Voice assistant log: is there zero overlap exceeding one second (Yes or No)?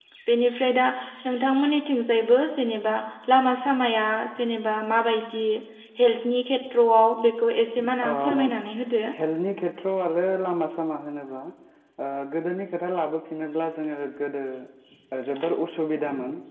Yes